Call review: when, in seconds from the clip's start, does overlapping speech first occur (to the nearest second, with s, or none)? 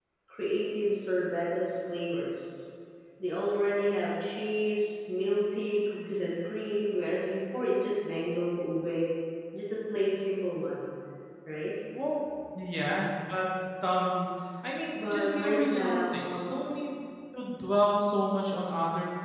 15 s